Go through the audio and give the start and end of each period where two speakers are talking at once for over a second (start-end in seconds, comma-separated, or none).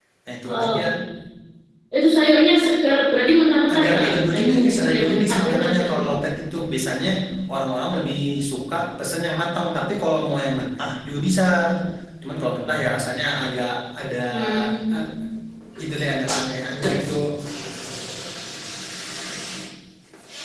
3.7-6.0